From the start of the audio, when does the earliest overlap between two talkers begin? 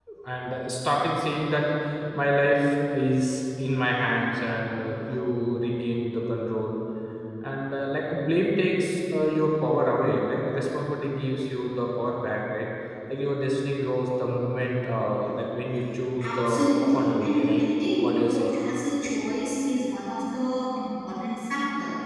16 s

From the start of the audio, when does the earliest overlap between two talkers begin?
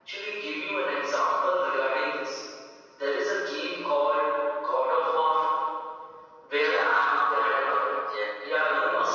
7 s

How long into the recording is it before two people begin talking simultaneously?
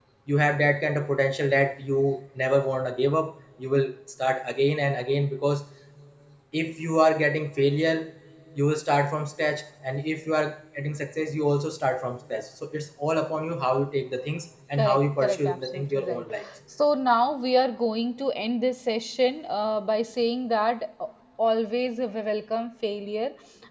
15 s

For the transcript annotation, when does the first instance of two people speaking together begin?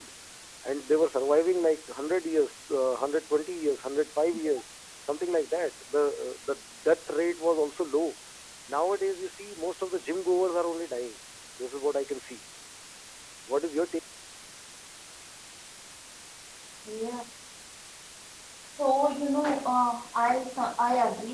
none

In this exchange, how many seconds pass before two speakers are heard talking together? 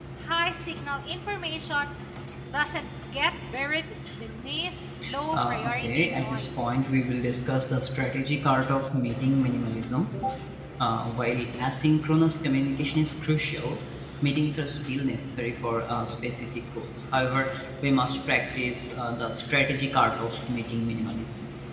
5 s

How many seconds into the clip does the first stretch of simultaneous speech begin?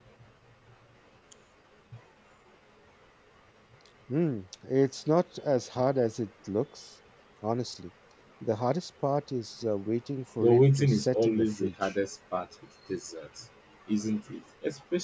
10 s

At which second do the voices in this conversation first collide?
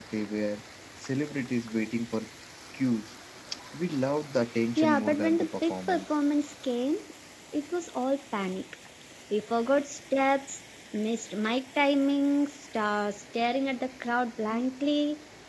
5 s

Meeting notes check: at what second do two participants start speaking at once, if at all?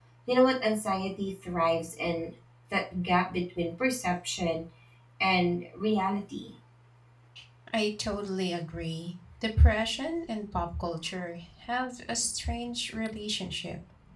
none

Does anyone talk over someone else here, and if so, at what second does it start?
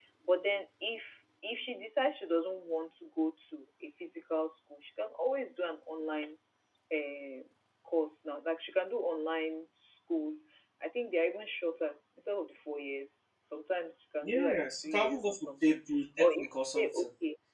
14 s

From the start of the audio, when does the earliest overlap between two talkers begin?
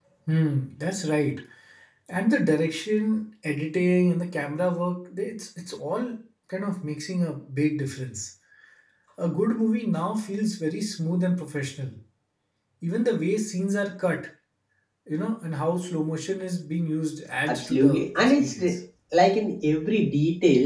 17 s

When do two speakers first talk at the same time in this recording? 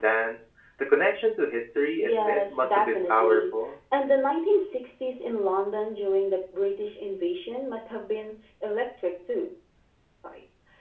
2 s

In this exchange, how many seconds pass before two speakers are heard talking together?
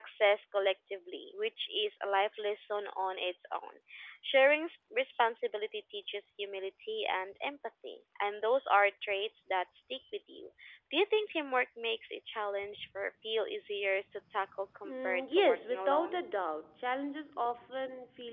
15 s

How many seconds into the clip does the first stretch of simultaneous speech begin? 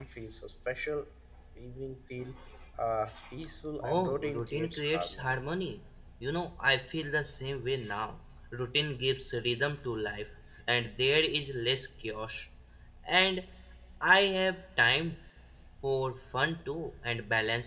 4 s

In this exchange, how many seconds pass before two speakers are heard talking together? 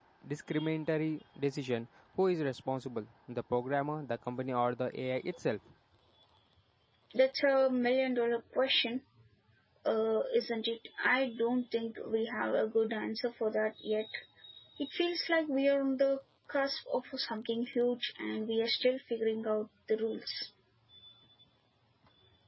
none

